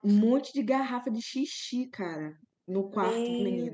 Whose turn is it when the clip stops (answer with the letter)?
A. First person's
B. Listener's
B